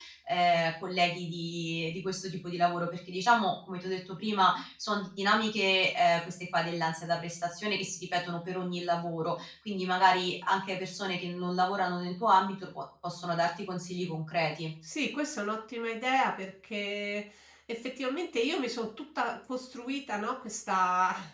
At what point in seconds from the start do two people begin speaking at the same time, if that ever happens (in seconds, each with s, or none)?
none